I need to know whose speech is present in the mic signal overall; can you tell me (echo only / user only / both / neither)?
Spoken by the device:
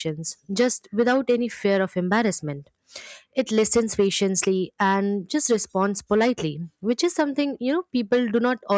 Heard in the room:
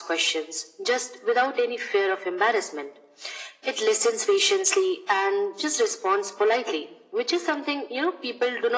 echo only